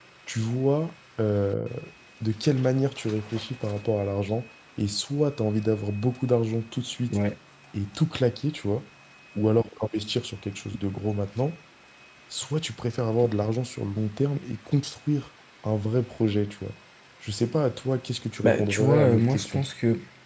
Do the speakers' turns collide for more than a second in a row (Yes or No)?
Yes